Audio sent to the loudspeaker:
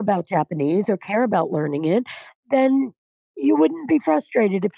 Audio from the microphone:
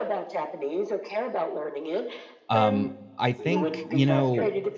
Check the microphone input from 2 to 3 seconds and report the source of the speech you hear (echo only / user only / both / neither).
both